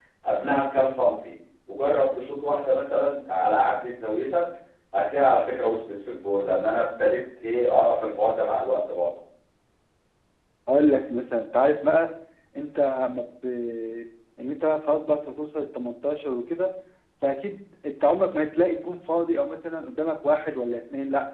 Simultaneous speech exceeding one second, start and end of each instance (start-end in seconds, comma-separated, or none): none